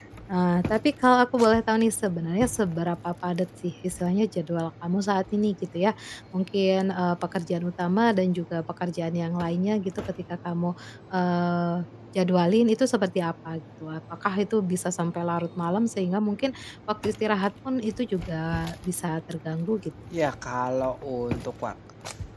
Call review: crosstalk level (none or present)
none